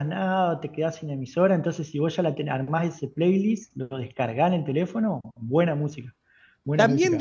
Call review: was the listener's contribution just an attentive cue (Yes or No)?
No